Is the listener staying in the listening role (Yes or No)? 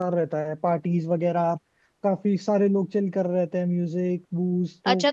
No